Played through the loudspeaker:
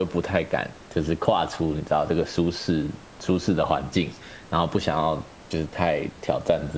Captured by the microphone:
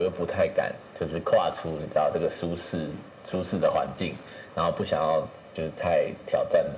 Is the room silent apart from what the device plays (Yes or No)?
Yes